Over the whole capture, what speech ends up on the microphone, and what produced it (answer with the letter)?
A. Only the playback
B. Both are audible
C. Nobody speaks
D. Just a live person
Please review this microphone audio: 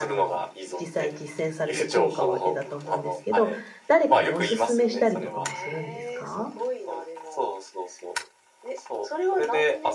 B